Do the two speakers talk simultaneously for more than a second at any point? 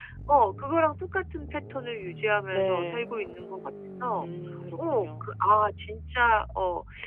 No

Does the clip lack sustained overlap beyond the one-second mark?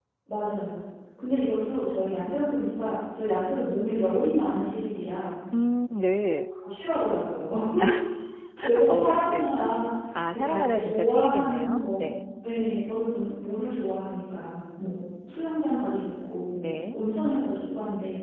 No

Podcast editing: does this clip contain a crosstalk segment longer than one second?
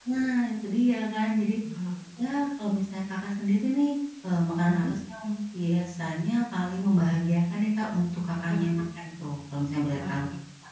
No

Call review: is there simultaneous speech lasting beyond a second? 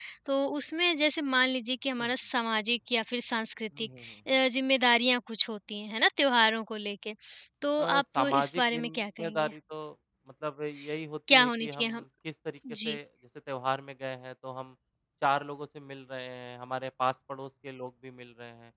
Yes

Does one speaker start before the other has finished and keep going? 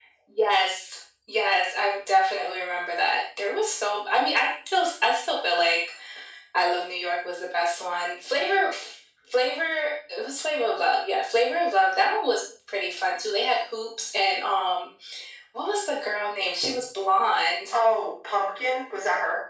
No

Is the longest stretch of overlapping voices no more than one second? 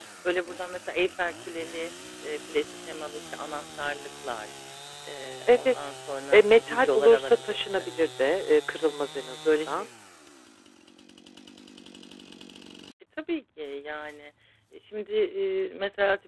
No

